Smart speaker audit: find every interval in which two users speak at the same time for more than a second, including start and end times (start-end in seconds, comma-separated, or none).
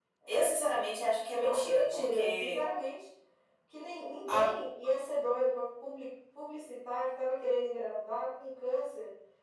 1.4-2.6